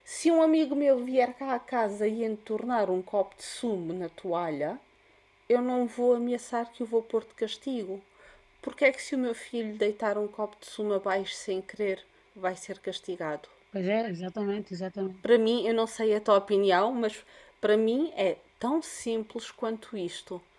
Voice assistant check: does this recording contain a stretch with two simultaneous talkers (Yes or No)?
No